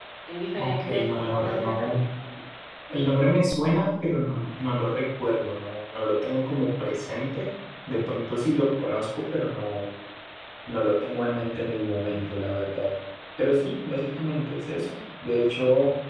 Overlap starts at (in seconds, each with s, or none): 0.6 s